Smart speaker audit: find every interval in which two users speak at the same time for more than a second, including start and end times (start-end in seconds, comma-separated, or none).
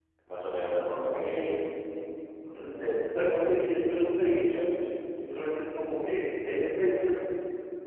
none